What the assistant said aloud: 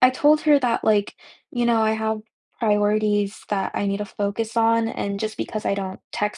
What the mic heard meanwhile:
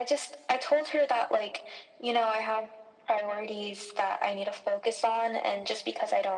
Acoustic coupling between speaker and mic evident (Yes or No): Yes